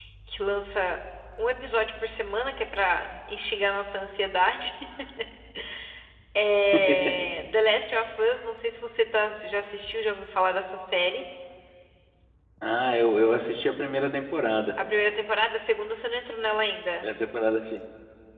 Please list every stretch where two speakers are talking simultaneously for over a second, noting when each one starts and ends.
none

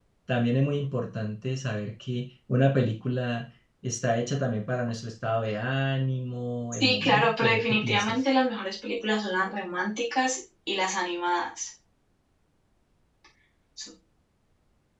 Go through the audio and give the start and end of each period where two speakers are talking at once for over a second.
6.7-8.2

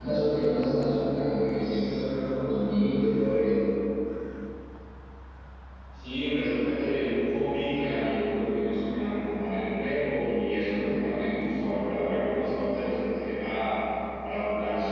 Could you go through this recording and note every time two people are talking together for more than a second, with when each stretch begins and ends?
none

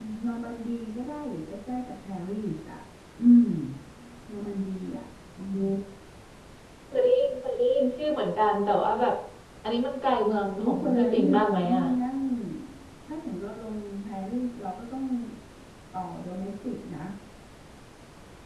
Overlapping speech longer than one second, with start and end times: 10.6-11.8

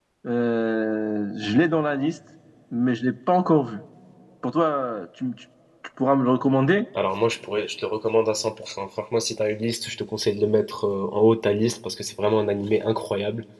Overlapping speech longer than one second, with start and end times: none

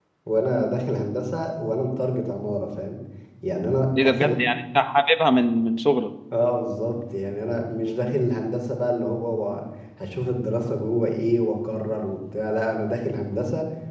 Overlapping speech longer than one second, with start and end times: none

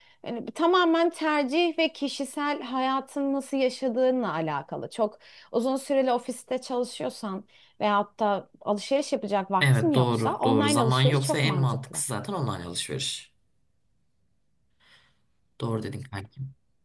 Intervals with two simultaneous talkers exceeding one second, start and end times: 9.6-12.0

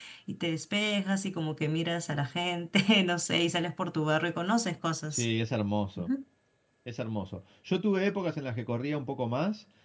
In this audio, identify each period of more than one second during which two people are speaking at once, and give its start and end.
none

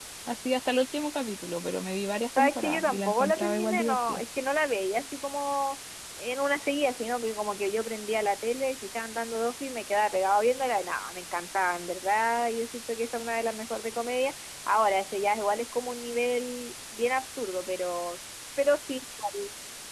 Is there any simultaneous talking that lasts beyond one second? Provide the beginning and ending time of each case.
2.4-4.2

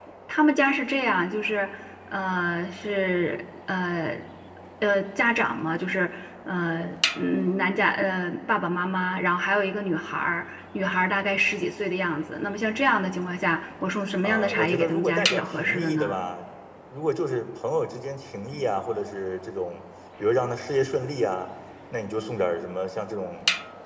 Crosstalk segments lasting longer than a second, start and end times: 14.2-16.2

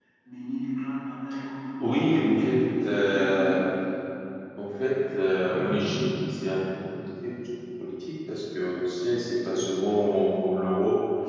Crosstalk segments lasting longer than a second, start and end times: 1.8-3.6

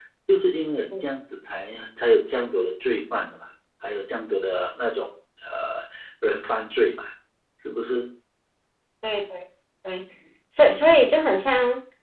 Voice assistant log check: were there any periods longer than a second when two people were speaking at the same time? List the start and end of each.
none

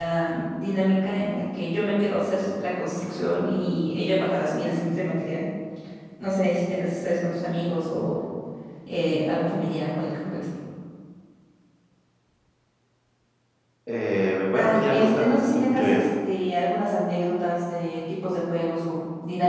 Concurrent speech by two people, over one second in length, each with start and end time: 14.6-16.0

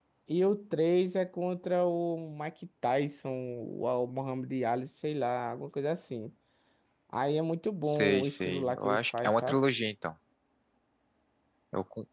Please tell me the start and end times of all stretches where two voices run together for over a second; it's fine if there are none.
7.8-9.6

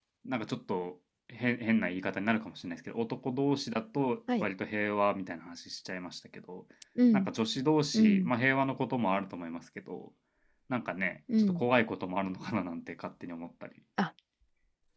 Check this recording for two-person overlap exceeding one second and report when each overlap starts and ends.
none

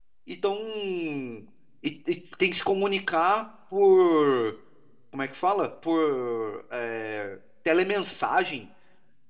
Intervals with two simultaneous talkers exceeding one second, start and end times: none

